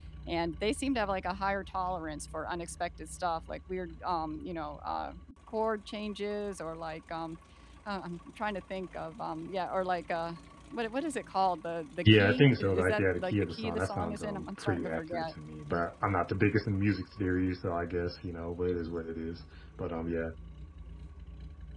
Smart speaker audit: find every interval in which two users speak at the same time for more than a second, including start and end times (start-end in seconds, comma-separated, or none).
12.0-15.3